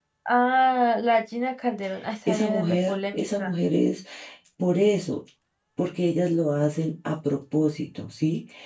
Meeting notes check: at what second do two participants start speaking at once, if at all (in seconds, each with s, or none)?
2.3 s